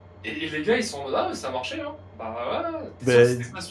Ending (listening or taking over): listening